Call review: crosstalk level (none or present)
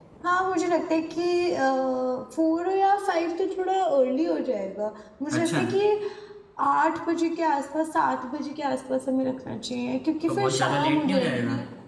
present